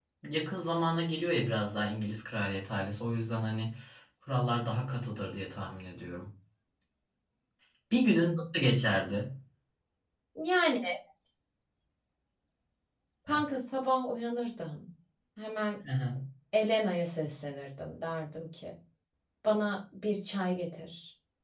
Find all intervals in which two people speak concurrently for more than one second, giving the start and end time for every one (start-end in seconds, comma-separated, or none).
none